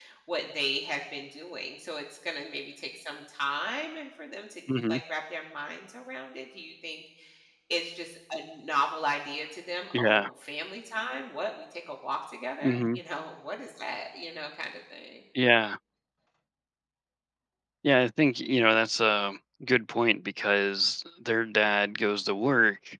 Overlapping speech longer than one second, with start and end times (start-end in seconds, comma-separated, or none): none